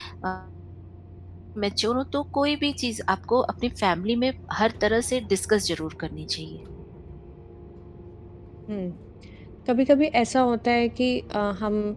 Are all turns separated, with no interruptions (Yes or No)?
Yes